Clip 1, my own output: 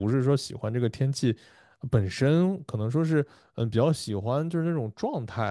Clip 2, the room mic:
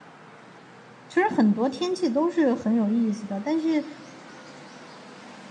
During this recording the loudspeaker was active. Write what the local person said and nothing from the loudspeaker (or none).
其实很多天气都是很有意思的，但是